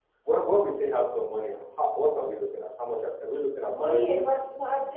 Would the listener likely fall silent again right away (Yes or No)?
No